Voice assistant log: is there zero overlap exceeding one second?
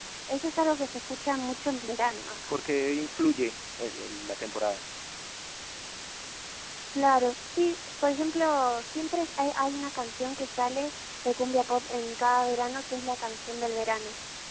Yes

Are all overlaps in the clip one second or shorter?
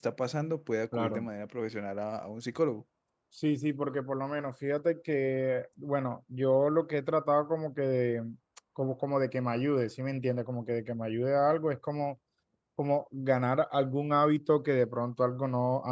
Yes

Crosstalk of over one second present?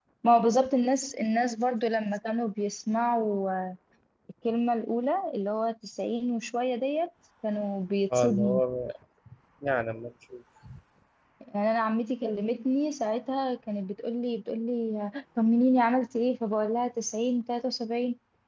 No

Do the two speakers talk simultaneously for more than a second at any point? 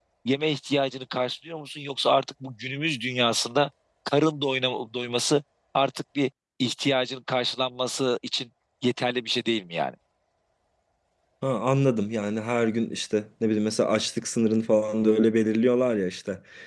No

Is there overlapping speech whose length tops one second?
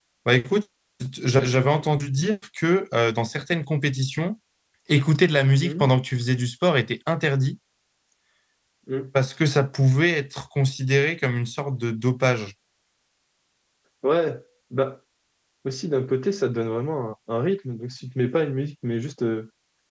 No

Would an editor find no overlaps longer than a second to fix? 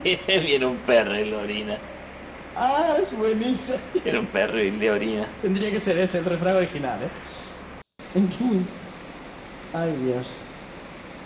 Yes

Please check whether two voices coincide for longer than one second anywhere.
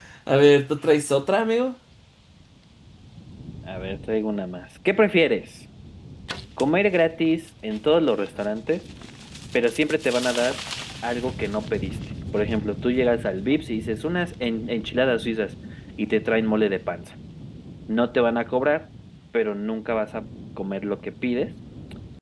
No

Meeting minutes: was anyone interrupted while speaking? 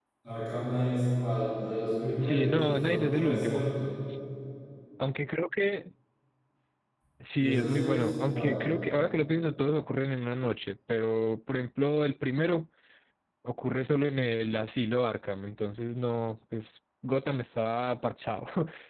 Yes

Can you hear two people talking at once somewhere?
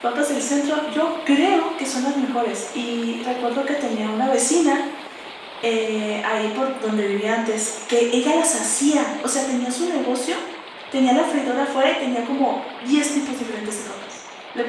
No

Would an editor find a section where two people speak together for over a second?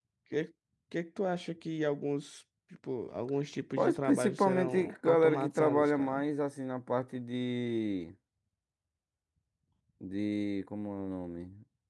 Yes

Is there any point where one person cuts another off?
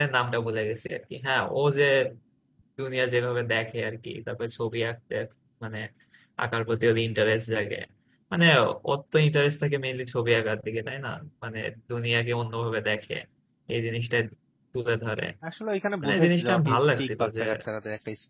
Yes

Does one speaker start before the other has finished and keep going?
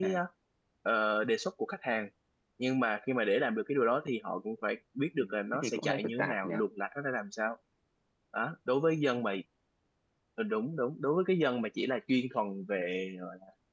Yes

